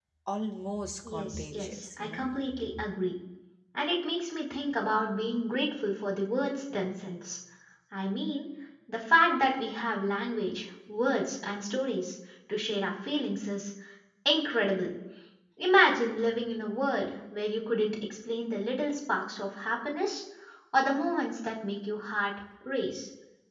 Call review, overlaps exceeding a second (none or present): present